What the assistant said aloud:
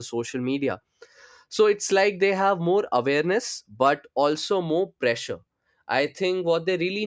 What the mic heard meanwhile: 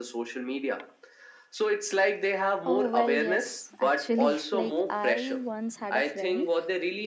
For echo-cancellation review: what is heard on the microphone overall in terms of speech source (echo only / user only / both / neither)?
both